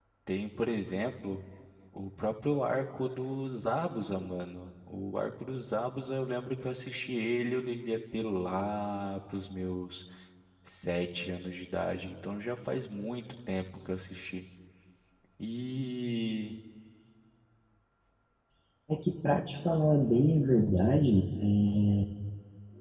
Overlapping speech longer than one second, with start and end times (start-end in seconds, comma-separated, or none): none